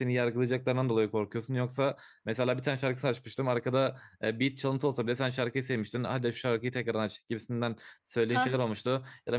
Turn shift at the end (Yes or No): No